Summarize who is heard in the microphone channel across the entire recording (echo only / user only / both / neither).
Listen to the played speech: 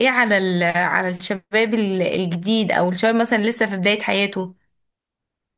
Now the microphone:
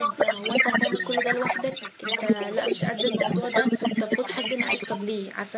both